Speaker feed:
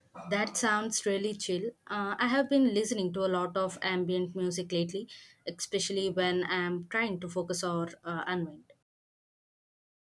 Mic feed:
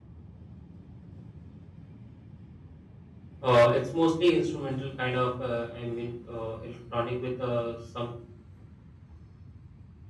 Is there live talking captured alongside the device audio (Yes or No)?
Yes